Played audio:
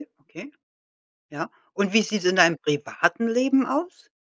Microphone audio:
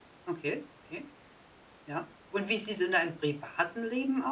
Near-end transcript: none

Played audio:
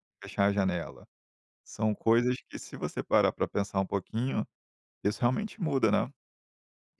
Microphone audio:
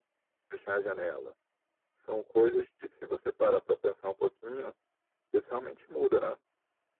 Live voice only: none

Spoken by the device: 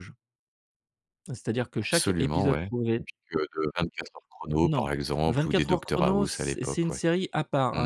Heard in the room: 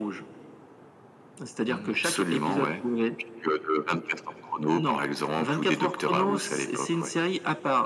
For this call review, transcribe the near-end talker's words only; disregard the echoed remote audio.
Mmh.

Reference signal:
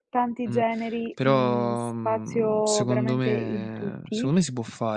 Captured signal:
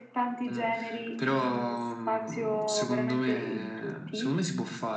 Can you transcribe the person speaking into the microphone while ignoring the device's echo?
none

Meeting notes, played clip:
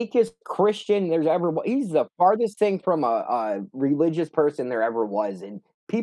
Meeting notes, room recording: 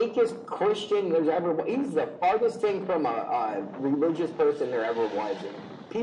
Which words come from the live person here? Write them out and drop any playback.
none

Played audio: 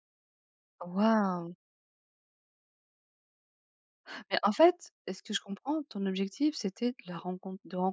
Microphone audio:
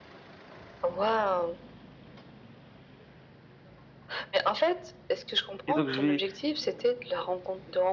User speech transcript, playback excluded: et donc je vais,

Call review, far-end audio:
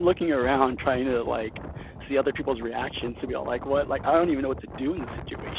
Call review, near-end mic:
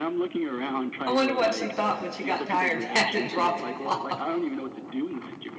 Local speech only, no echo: I wonder what she thought when she got tired, had to drop off.

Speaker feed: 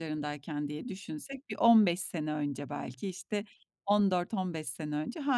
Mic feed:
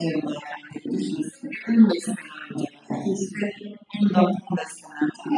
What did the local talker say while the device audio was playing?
none

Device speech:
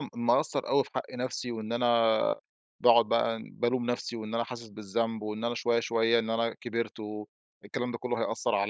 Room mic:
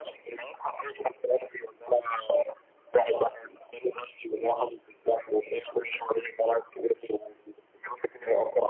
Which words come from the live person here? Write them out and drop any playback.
none

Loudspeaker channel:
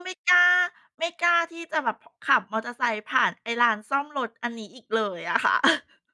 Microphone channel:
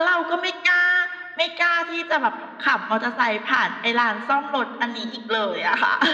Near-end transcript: none

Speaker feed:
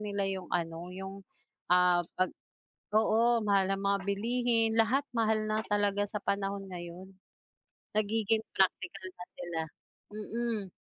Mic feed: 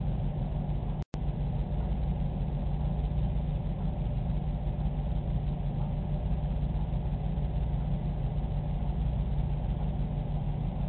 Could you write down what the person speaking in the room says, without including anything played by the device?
none

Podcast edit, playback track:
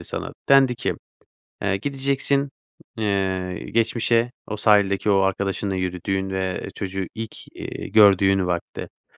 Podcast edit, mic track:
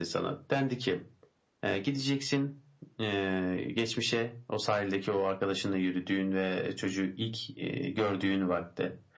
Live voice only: none

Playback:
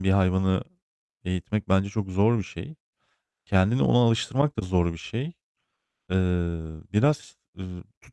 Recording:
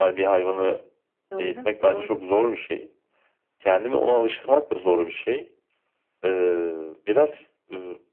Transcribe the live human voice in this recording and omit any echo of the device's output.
Doğru, doğru.

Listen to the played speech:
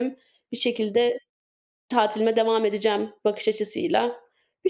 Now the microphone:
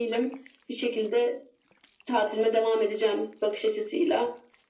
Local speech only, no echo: none

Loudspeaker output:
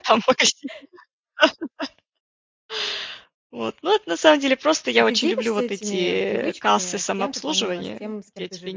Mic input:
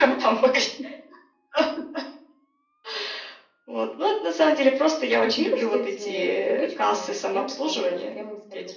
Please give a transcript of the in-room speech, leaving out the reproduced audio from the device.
none

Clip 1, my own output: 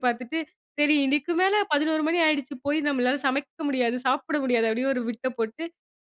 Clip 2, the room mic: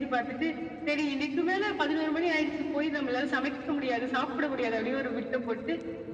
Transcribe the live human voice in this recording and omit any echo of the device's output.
none

